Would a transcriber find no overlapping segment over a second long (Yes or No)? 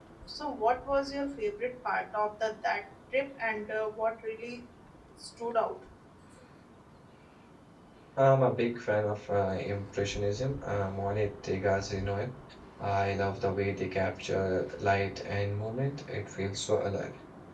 Yes